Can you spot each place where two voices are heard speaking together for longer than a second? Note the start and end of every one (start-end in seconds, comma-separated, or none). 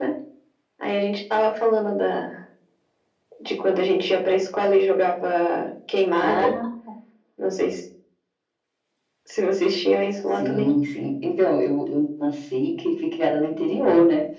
none